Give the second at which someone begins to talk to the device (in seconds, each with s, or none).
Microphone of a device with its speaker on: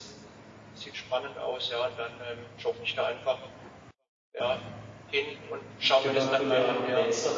5.8 s